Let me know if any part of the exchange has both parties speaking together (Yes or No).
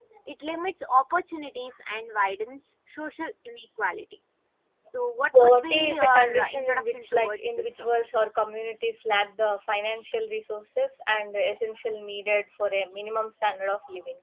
Yes